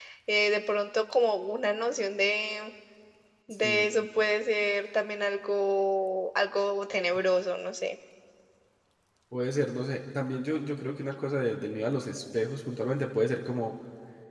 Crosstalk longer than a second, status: none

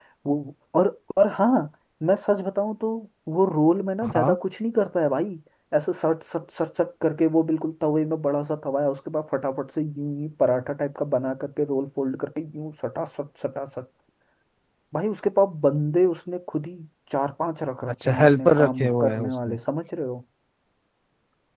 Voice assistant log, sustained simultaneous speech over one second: present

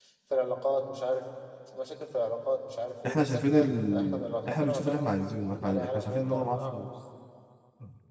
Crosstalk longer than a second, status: present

